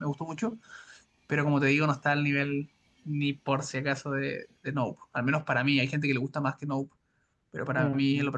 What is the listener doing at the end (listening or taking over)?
taking over